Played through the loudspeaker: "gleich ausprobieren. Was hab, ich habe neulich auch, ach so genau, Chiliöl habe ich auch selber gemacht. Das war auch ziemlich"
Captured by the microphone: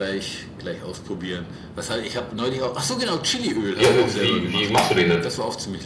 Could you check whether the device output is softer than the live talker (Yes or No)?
Yes